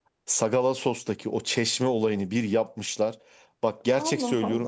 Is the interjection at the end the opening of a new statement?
No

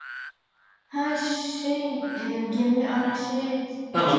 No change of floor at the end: No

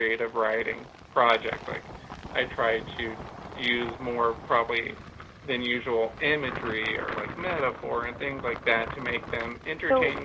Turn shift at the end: Yes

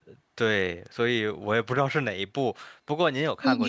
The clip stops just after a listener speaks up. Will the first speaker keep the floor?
No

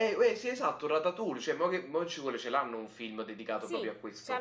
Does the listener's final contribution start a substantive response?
Yes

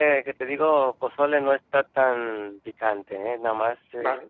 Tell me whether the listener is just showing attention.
No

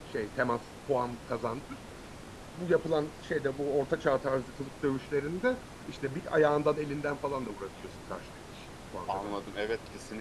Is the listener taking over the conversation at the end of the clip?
Yes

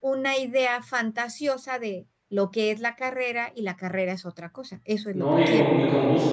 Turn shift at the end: Yes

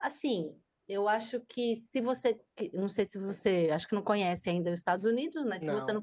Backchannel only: Yes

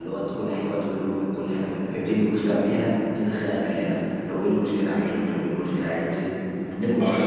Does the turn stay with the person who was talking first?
No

